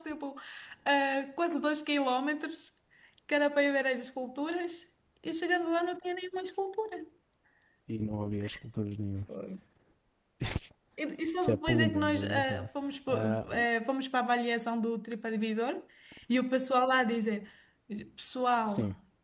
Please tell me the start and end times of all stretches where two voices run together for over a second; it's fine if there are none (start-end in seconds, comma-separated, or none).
11.4-12.7